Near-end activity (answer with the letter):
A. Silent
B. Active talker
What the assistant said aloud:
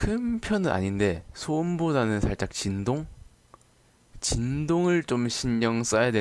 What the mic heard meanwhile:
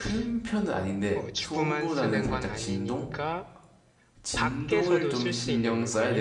B